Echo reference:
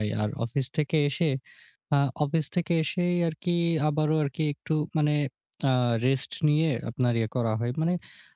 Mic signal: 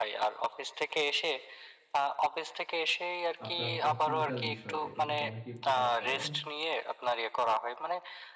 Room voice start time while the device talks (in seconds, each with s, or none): 3.5 s